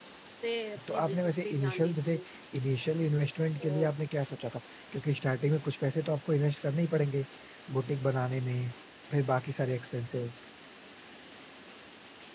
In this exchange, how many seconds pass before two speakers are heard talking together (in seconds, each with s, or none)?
0.9 s